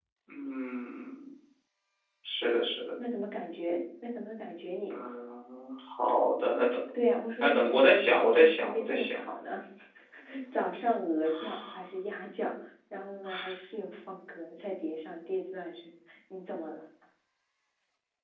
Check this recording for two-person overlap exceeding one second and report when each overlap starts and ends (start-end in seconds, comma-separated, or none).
7.4-9.2